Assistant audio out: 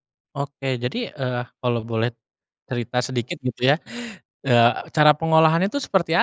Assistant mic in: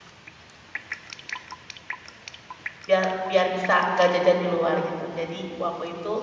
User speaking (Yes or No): Yes